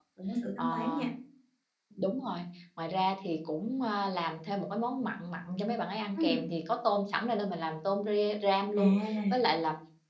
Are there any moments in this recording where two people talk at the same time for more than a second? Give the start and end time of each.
none

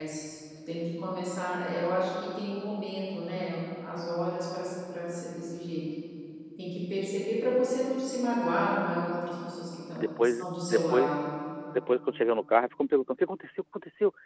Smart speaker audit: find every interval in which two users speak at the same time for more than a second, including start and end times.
10.0-11.2

